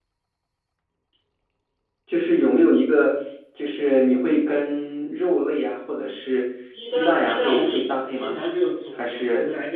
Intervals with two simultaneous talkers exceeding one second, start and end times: 6.9-8.4

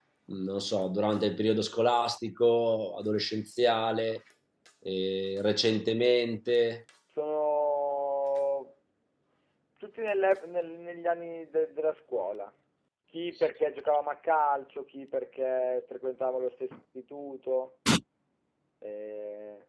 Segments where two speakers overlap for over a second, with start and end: none

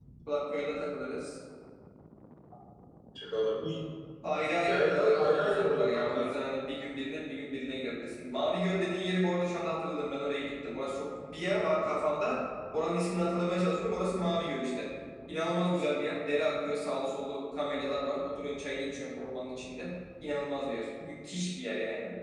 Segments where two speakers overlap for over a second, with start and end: 4.6-6.3

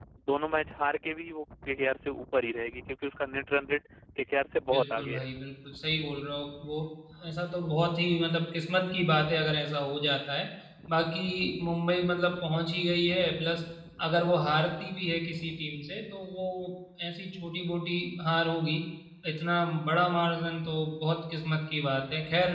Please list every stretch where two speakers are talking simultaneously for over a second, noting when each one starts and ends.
none

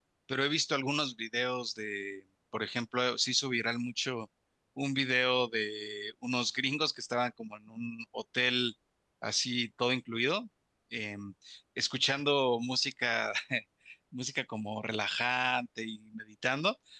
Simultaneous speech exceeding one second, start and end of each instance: none

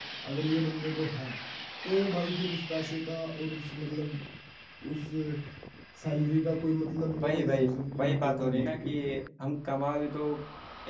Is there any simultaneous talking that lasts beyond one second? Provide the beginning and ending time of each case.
7.2-9.0

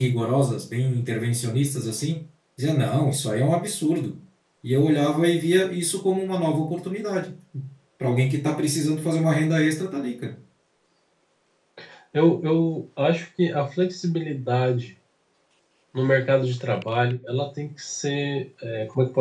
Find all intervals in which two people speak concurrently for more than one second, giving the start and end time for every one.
none

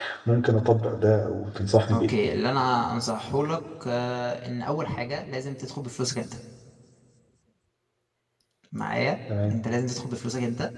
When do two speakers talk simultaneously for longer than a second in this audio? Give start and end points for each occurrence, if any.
none

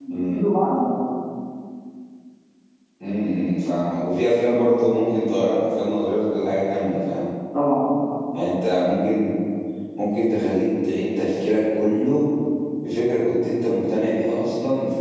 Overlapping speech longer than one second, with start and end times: none

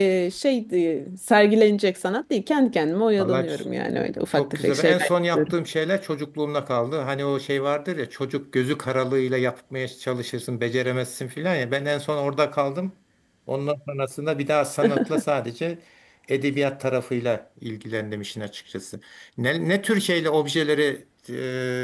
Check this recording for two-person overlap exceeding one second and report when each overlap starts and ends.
4.3-5.5

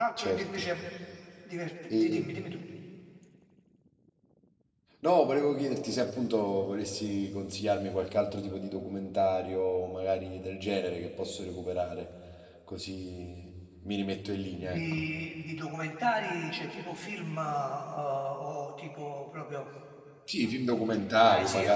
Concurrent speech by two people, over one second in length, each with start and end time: none

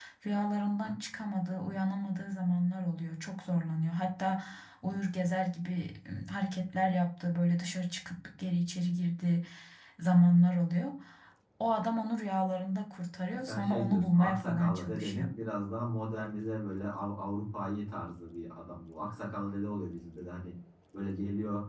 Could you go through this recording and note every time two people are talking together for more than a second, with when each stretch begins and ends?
13.3-15.3

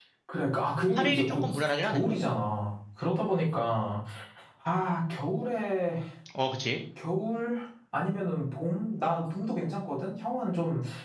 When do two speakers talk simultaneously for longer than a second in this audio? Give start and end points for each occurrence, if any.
1.0-2.4

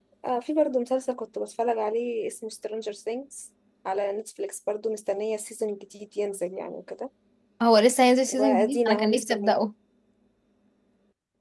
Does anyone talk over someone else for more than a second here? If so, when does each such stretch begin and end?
8.3-9.6

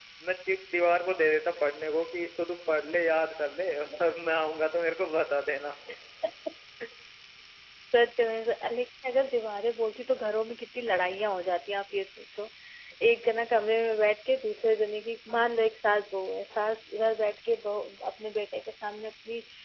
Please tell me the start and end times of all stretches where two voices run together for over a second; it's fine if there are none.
none

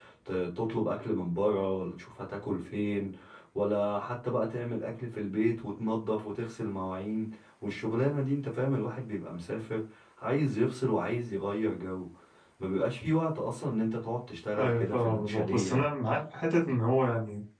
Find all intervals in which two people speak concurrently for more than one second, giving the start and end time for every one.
14.6-15.8

